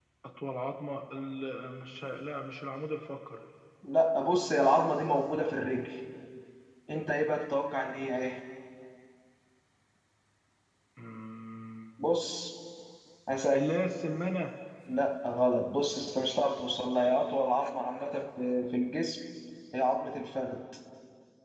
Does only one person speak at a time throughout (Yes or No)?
Yes